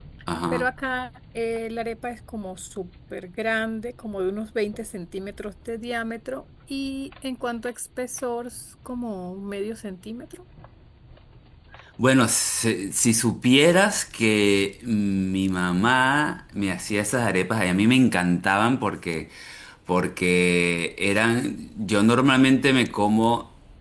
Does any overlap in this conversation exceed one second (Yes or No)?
No